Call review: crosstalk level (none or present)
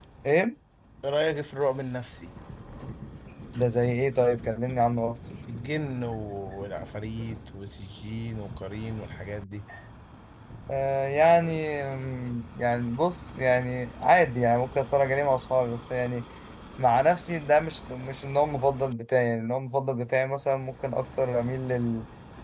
none